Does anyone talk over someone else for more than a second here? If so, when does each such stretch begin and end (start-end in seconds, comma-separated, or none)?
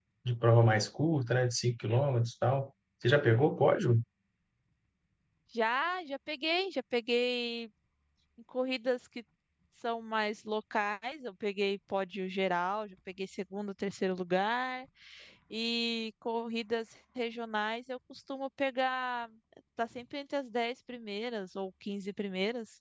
none